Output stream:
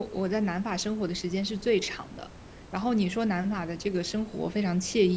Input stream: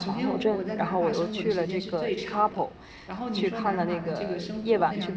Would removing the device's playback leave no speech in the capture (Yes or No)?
No